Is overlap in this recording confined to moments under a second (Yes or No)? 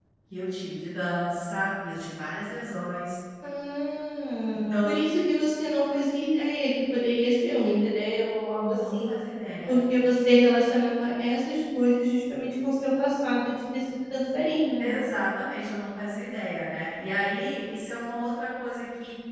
Yes